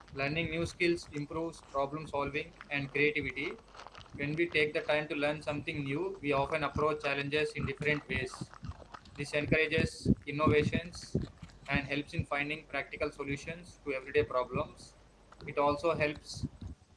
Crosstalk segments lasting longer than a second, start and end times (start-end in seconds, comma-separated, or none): none